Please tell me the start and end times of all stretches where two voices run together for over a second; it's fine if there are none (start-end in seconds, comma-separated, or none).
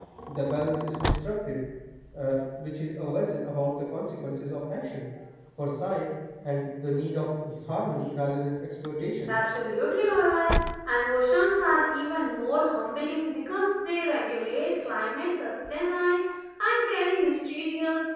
none